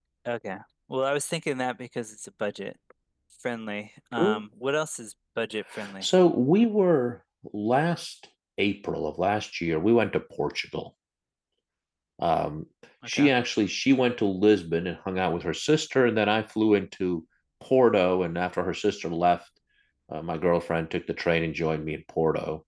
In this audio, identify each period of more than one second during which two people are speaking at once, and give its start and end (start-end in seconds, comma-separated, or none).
none